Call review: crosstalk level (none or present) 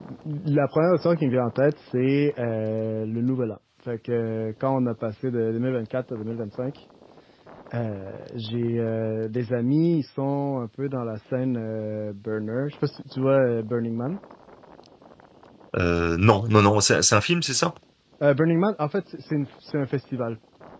none